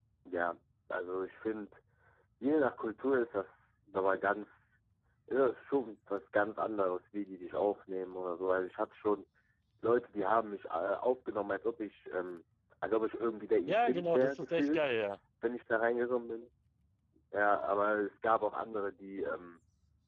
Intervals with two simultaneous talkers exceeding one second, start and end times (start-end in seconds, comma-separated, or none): 13.7-14.9